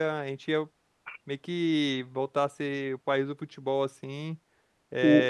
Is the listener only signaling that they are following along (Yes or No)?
Yes